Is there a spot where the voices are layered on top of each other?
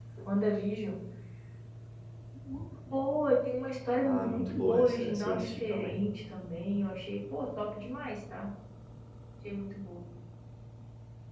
Yes, from 4.0 s

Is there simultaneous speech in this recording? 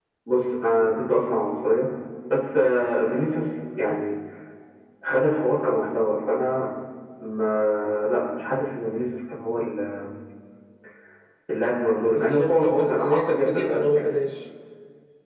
Yes, from 12.2 s

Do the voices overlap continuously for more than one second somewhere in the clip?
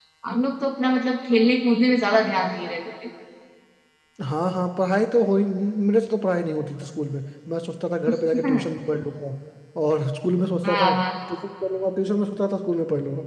No

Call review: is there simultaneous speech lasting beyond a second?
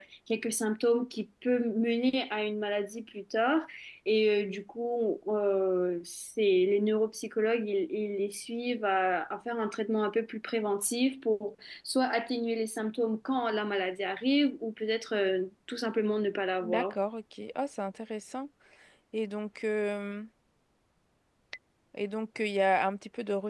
No

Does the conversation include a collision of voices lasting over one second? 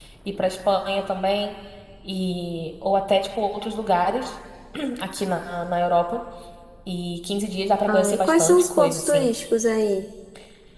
Yes, from 7.9 s

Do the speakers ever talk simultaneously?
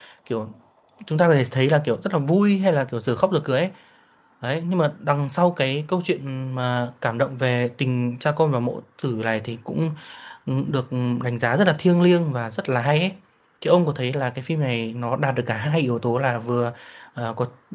No

